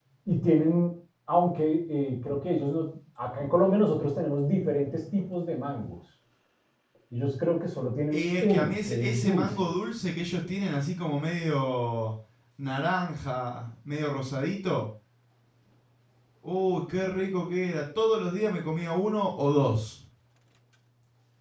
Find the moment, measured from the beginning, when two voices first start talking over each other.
8.1 s

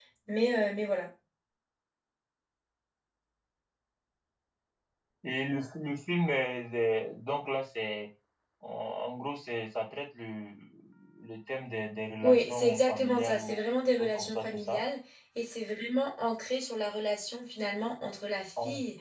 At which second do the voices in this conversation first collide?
12.2 s

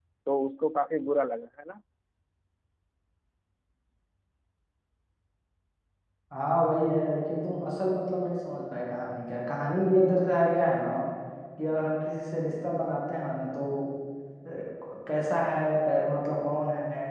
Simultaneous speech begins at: none

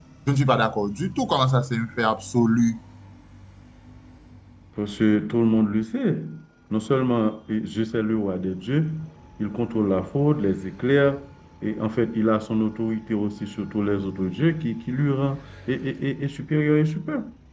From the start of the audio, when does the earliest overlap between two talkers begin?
none

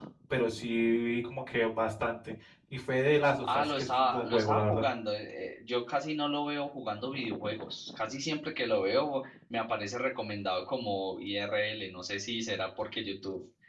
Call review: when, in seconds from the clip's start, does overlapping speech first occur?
3.4 s

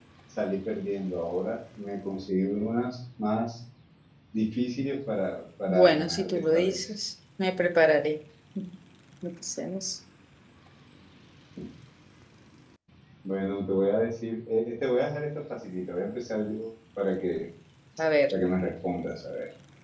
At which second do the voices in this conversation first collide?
5.7 s

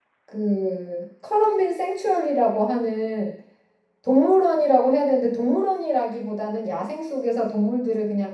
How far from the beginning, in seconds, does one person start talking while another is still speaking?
none

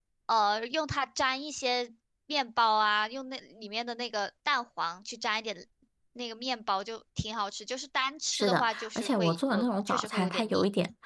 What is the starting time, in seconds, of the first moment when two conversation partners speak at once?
8.3 s

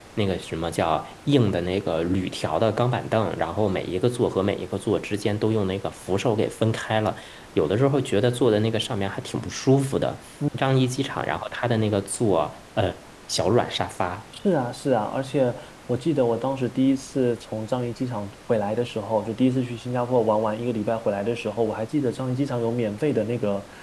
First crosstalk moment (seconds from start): none

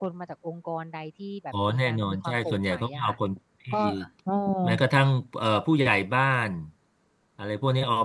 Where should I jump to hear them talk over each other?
1.7 s

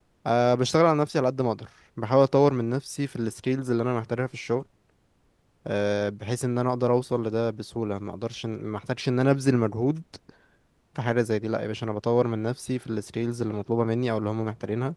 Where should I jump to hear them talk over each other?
none

